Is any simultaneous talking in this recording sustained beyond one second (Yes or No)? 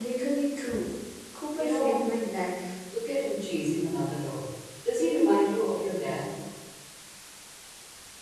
No